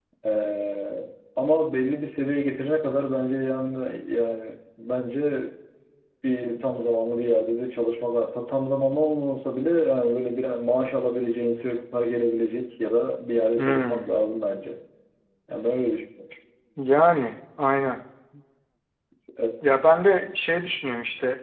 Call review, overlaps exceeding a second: none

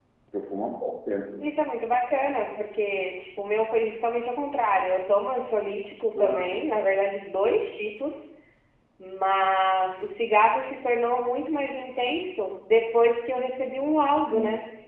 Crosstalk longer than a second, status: none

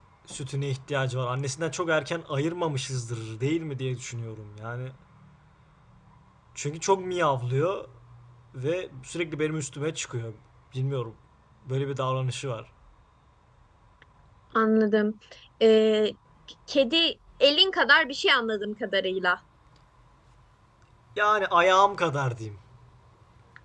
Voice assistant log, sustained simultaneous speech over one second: none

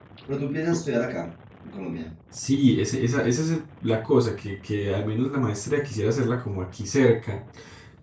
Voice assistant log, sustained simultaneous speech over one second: none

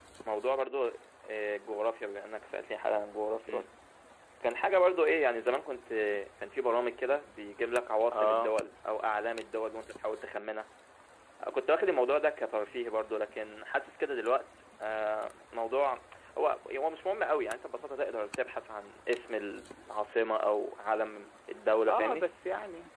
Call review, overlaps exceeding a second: none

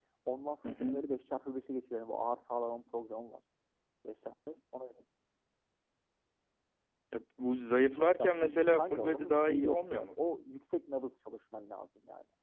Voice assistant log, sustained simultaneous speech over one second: present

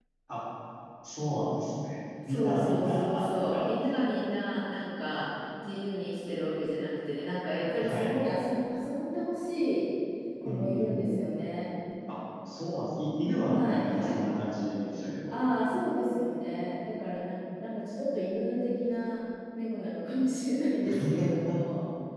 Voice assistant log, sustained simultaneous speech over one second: present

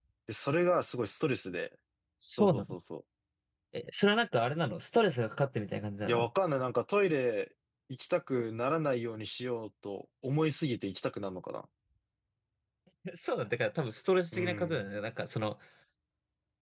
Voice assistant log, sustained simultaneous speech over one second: none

